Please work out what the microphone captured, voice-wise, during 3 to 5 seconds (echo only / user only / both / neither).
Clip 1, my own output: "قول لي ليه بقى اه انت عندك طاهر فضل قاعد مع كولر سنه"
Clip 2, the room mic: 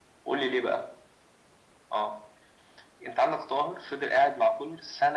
echo only